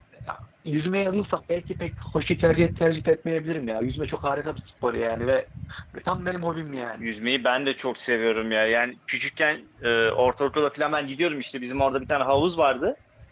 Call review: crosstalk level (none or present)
none